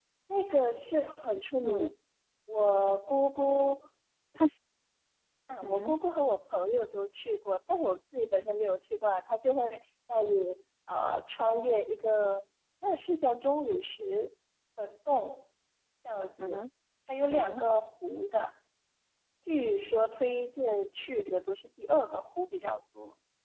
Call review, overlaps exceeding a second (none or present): none